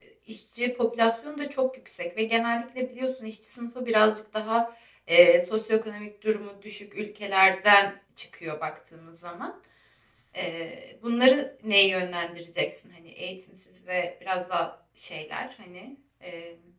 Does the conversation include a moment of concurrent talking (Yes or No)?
No